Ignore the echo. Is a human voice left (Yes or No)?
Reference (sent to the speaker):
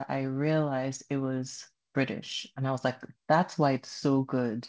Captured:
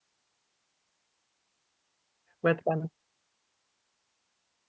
Yes